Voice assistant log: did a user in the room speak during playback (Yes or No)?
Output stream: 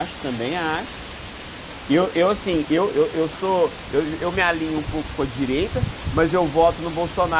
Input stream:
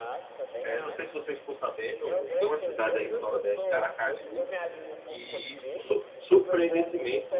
Yes